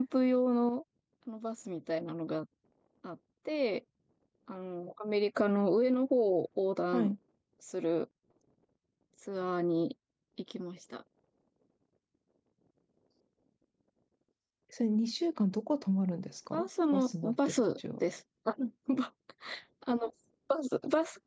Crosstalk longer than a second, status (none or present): present